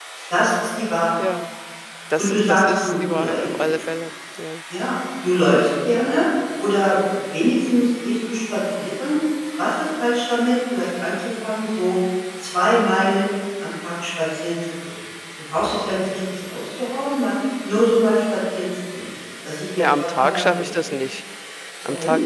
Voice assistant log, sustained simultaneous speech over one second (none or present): present